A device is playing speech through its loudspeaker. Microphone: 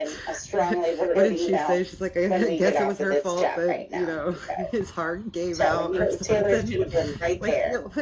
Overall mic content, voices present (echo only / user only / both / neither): both